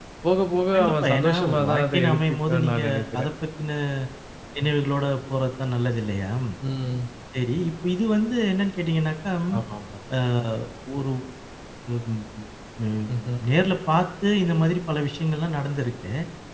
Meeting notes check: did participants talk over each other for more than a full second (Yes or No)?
Yes